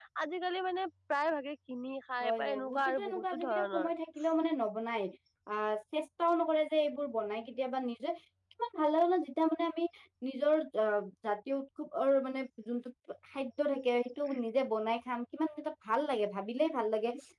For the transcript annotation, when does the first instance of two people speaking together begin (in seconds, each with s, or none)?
2.2 s